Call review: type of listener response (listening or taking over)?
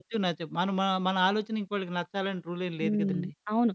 taking over